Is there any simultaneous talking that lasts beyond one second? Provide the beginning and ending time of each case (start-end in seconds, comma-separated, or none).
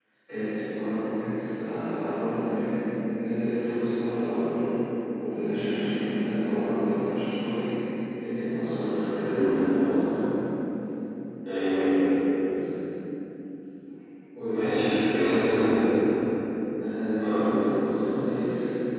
14.5-15.8